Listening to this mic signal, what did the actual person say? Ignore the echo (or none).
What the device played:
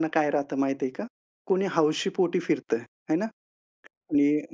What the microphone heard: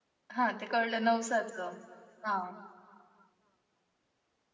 हां, ते कळलं नवसाचं. हां.